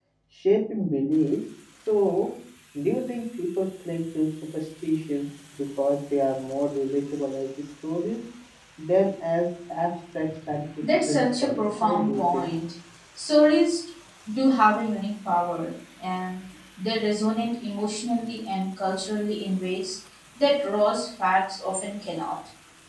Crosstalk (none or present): present